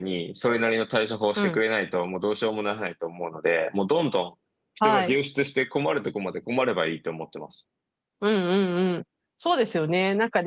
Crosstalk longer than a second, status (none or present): none